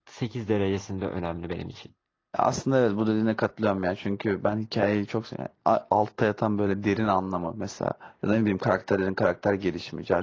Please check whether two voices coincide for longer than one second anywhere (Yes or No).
No